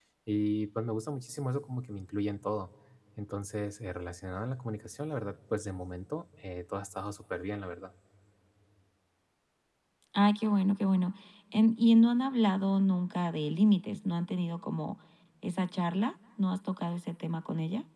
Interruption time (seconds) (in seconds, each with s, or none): none